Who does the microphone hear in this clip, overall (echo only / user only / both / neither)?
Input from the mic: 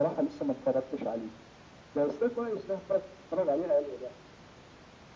echo only